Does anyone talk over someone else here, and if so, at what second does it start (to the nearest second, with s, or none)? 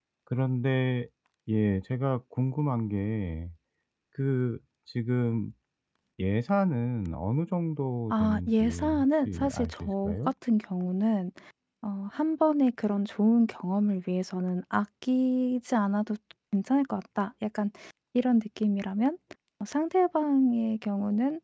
8 s